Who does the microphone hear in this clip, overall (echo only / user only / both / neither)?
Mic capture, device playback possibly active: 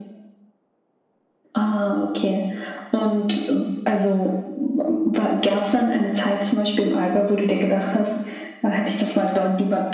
echo only